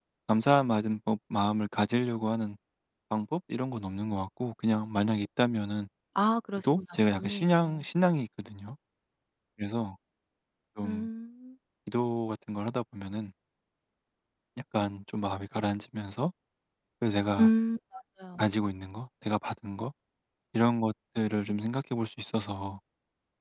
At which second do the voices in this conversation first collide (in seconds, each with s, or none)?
6.6 s